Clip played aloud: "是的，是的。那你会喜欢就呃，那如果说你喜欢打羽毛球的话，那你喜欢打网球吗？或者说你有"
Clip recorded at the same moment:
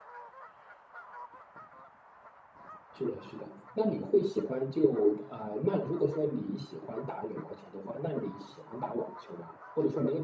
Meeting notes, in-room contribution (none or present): none